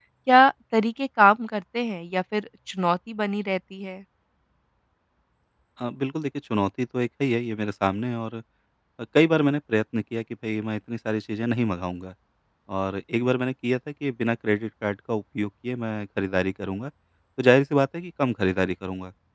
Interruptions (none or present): none